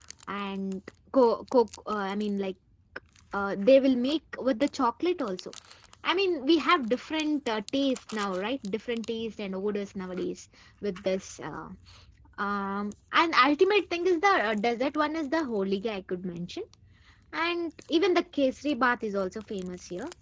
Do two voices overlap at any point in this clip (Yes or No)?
No